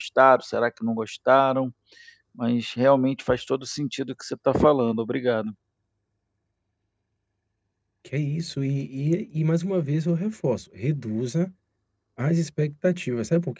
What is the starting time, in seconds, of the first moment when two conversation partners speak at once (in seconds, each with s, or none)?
none